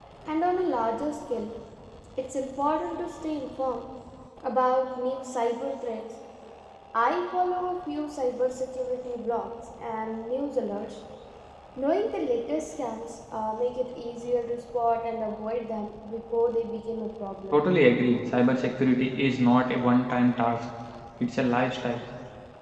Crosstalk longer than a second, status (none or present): none